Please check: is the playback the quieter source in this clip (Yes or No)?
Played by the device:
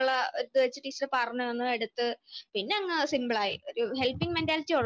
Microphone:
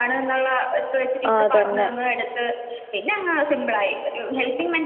Yes